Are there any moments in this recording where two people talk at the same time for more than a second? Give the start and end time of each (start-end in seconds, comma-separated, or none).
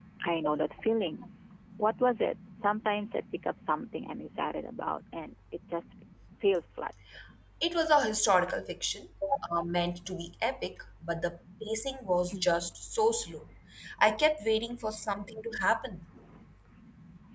none